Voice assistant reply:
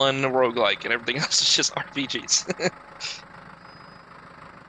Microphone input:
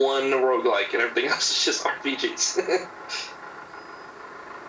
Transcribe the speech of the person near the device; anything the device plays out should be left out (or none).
none